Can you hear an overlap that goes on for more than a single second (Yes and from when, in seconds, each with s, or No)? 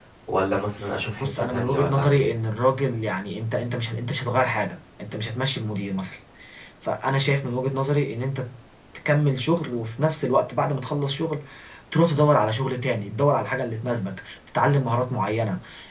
Yes, from 1.2 s